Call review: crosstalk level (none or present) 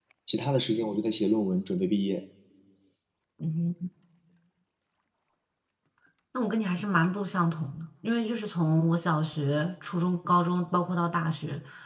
none